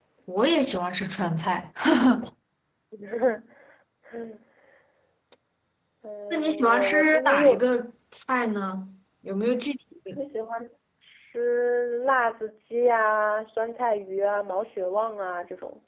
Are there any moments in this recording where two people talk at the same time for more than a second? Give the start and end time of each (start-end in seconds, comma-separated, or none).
6.3-7.7